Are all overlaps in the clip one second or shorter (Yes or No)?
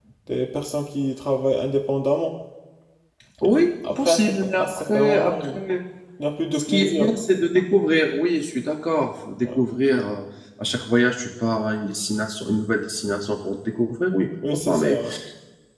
No